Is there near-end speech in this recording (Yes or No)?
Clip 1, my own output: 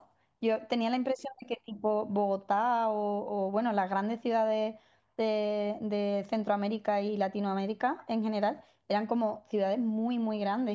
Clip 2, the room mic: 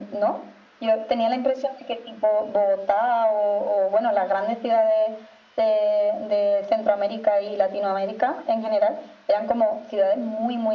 No